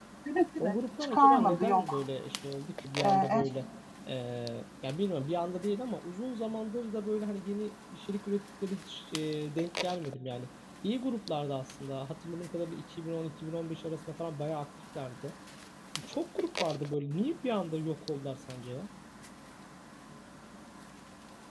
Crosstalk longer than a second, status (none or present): present